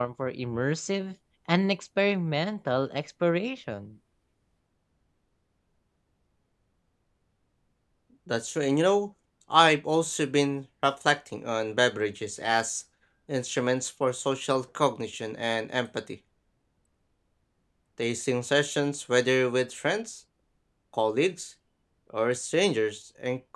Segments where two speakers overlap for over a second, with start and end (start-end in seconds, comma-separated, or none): none